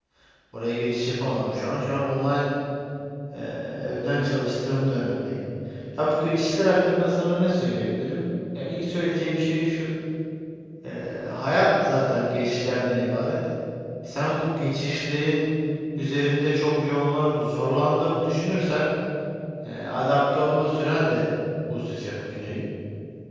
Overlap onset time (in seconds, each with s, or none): none